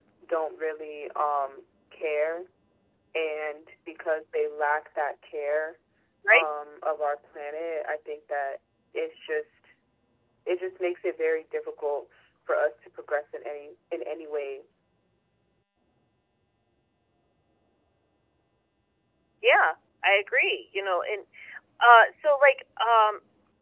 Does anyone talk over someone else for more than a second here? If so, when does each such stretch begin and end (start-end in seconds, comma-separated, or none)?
none